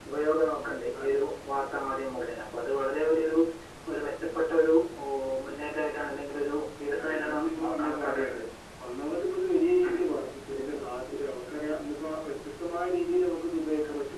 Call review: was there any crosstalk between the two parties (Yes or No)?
Yes